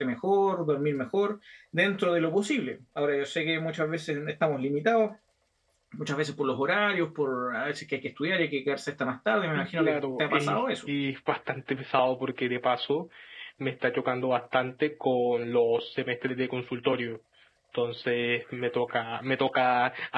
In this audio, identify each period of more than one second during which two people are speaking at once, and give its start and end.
9.6-10.9

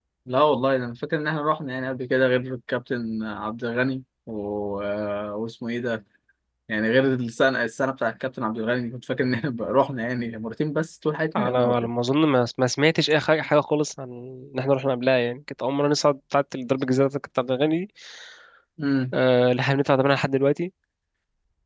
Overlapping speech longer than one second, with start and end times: none

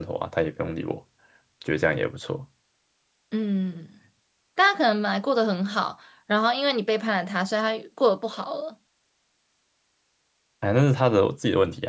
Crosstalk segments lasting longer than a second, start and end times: none

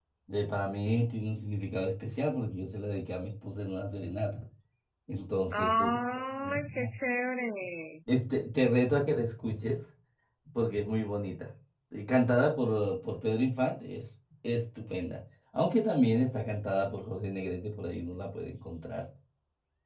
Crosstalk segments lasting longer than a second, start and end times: 5.5-6.9

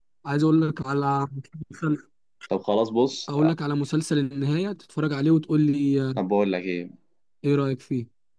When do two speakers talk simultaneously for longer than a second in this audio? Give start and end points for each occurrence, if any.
none

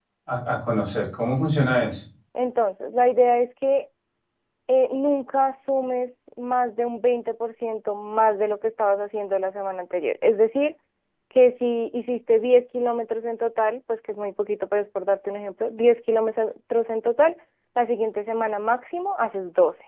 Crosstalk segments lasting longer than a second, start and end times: none

